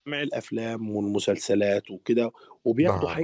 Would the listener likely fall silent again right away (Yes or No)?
Yes